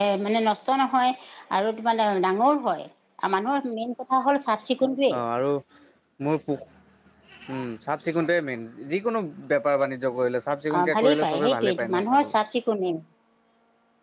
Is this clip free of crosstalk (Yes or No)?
No